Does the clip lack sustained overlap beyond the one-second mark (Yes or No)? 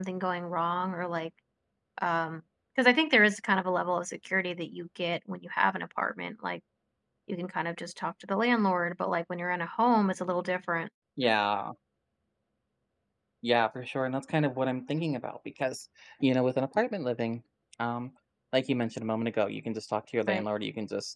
Yes